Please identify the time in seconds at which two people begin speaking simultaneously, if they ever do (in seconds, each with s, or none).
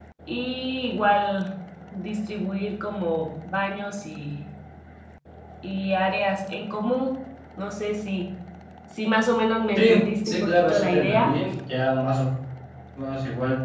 9.8 s